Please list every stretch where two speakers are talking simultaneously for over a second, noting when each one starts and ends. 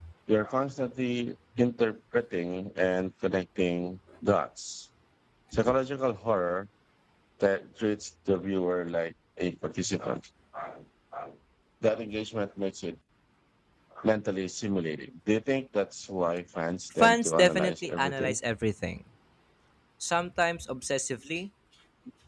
16.9-18.4

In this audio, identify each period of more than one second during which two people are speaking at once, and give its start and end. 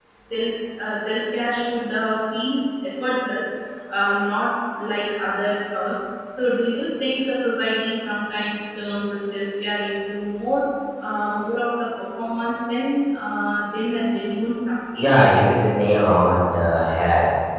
none

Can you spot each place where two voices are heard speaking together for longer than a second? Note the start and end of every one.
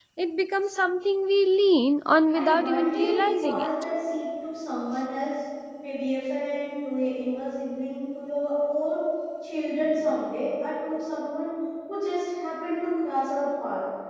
2.3-3.7

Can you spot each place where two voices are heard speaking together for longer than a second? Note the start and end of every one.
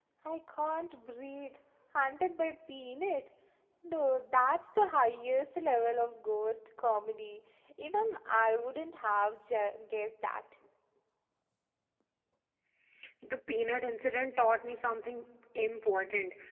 none

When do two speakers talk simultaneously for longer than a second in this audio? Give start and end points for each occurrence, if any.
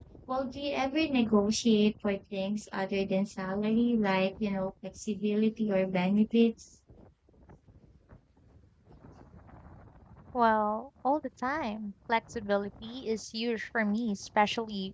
none

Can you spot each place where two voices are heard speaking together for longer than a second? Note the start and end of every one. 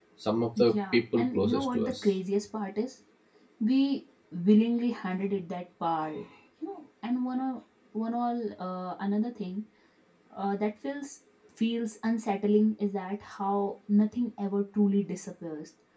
0.6-1.9

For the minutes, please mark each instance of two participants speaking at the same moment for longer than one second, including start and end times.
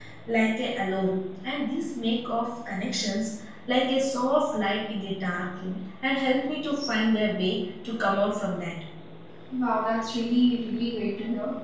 none

